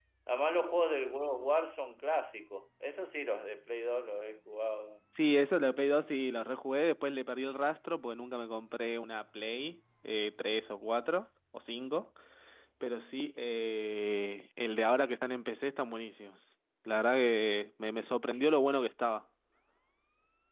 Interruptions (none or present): none